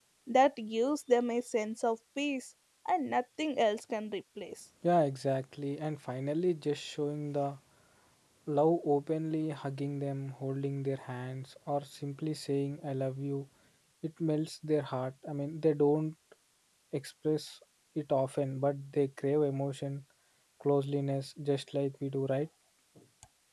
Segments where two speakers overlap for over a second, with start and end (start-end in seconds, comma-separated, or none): none